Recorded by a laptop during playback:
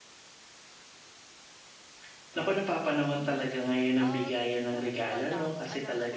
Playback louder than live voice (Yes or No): Yes